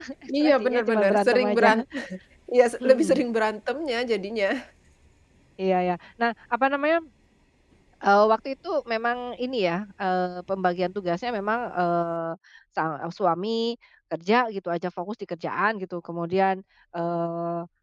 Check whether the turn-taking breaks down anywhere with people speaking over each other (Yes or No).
Yes